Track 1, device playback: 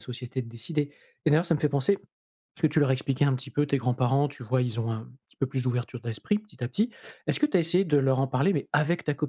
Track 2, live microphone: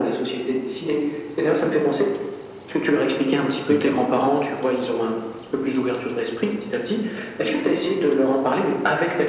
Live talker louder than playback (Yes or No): No